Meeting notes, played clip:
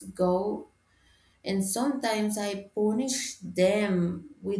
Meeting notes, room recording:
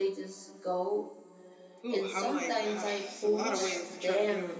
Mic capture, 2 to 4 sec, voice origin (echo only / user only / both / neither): both